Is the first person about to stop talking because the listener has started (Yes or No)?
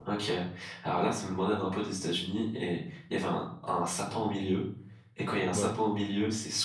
No